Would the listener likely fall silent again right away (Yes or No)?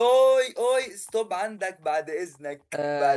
No